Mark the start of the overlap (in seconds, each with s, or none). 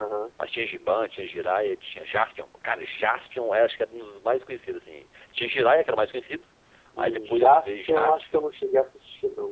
7.0 s